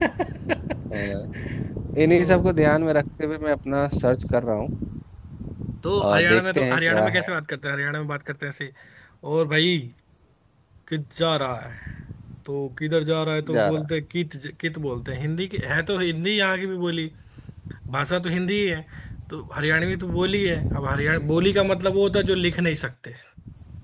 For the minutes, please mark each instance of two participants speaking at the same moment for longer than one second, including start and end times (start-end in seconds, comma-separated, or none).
6.0-7.3